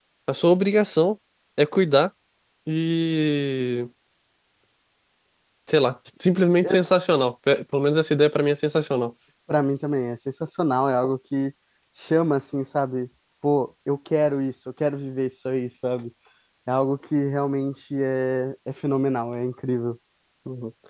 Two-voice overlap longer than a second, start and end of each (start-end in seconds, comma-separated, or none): none